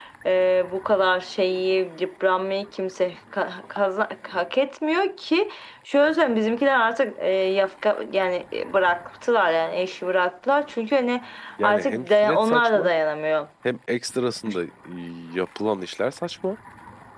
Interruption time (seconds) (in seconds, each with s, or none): 11.6 s